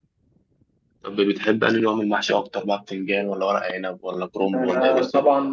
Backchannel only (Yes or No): No